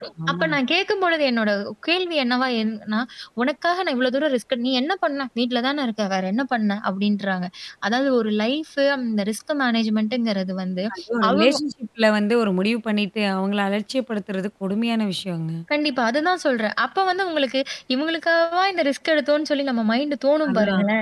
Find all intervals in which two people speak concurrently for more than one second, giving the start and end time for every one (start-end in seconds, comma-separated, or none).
none